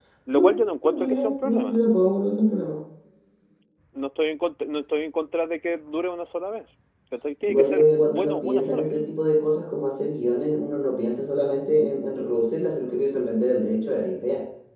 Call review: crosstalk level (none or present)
present